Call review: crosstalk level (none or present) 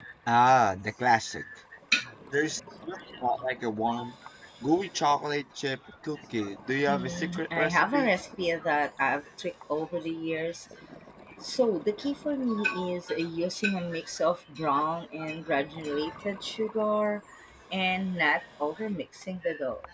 present